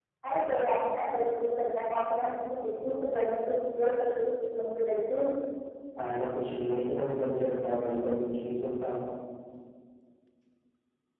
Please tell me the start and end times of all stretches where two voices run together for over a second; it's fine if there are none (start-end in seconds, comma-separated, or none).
none